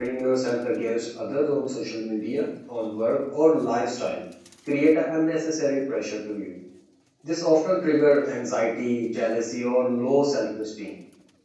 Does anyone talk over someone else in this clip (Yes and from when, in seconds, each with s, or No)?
No